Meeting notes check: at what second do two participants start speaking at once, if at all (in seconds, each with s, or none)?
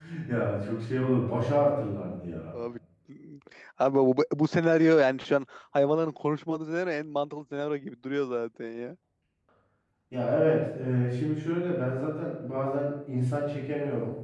none